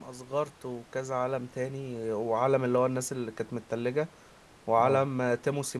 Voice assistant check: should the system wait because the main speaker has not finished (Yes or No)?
Yes